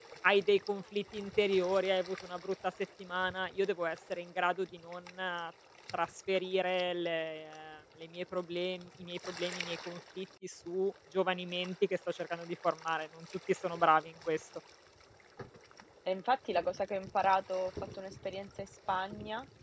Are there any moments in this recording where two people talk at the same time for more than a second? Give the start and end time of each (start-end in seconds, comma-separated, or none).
none